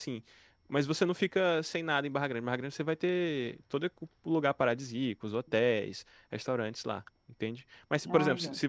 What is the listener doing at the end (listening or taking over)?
listening